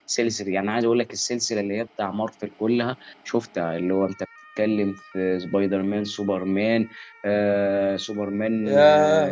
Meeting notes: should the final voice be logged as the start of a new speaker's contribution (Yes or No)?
Yes